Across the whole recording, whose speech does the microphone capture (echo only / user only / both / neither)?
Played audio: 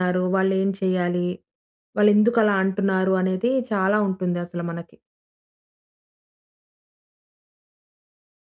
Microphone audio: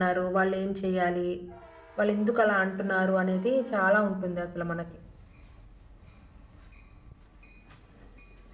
echo only